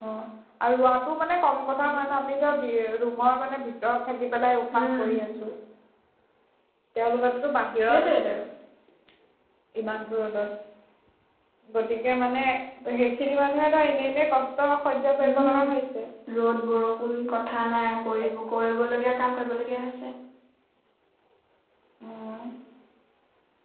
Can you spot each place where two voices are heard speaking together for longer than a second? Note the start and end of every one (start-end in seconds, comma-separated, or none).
none